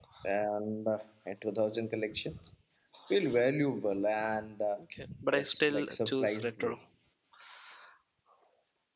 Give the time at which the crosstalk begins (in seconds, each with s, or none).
5.3 s